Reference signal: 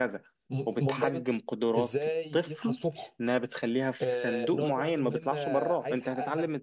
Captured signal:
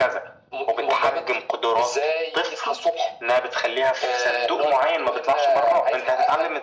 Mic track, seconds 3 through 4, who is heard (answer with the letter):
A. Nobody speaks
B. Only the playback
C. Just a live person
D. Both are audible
B